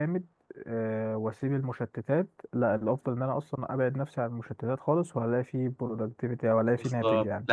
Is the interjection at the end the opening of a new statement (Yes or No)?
Yes